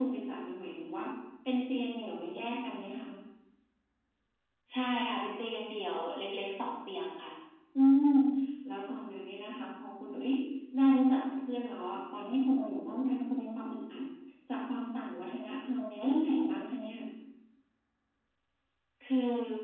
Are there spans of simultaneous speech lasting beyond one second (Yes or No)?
No